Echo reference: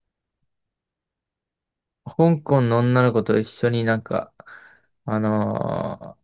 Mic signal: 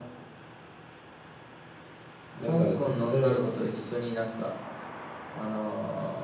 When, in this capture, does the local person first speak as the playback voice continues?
2.4 s

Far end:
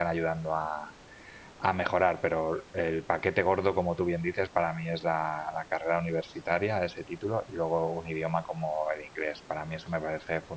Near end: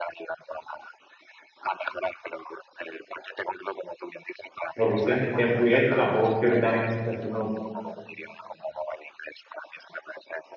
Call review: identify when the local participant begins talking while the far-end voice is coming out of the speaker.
4.7 s

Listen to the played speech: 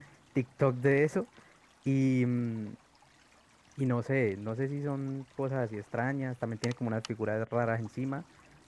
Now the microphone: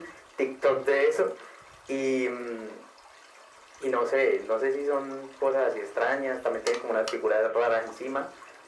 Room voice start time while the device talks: none

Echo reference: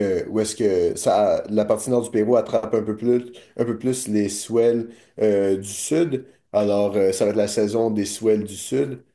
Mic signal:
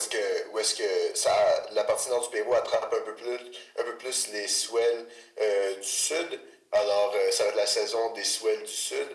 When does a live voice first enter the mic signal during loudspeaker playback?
none

